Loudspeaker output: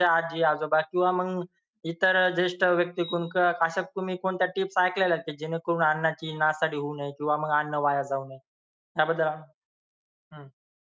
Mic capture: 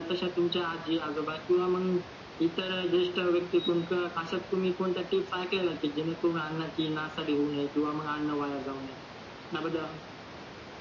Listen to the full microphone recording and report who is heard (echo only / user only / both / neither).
echo only